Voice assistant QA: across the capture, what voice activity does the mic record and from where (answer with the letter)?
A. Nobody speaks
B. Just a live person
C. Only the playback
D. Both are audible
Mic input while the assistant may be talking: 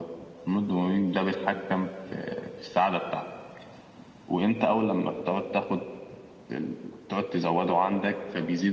C